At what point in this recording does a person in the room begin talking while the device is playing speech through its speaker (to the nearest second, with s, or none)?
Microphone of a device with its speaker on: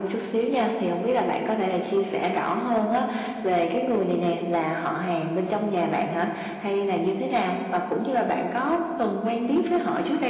none